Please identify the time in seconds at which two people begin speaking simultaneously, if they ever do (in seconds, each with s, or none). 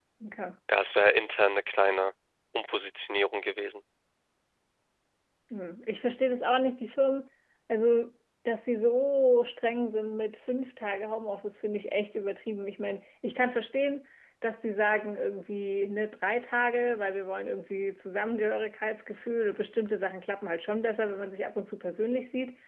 none